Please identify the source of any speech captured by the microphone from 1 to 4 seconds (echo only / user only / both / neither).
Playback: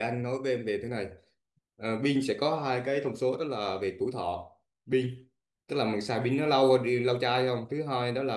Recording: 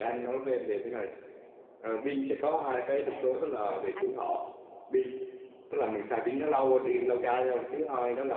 both